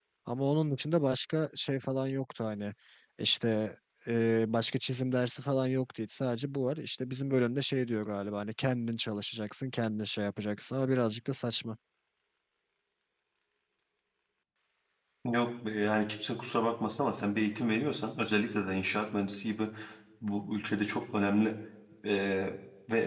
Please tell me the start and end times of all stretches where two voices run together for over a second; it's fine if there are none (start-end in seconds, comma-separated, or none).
none